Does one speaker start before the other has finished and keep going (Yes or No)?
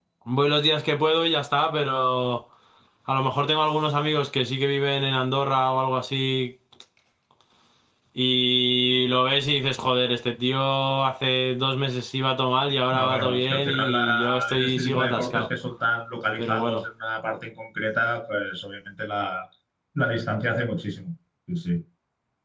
Yes